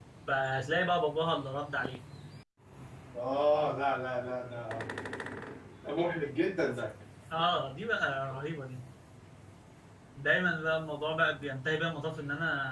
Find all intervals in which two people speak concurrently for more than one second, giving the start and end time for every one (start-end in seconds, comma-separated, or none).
none